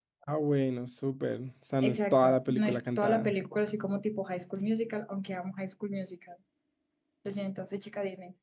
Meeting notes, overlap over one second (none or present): present